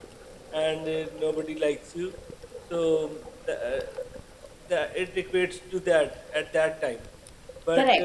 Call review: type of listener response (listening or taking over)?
taking over